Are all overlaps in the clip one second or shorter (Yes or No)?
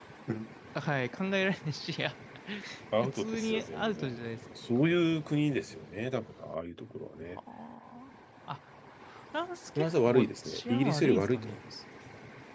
No